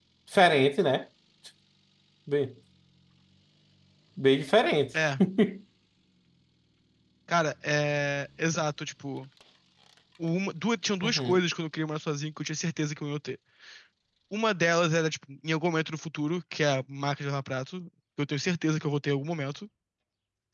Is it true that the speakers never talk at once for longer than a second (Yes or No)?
Yes